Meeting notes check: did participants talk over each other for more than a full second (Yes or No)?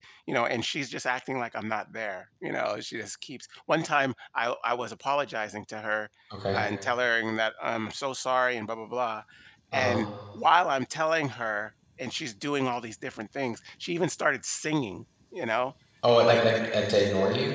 No